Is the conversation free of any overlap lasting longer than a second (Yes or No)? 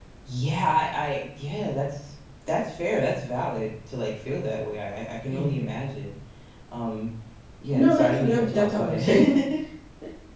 No